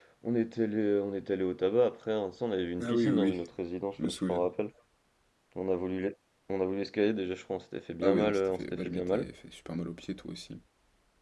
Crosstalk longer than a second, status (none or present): present